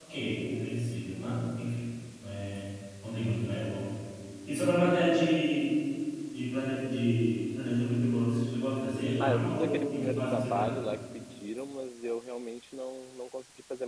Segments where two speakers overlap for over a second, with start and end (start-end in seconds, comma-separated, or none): 9.2-10.7